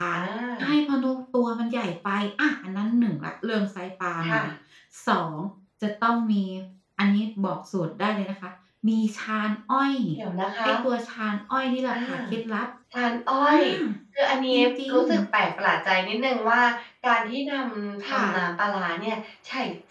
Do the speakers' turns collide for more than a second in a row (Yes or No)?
No